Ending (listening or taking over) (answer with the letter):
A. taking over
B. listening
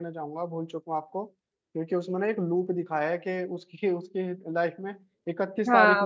A